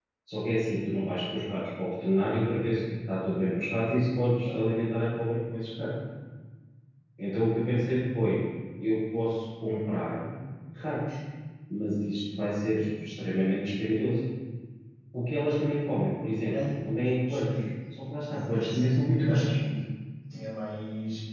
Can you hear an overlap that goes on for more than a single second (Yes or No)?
Yes